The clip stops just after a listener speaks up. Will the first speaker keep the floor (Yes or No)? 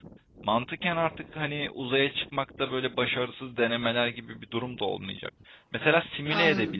Yes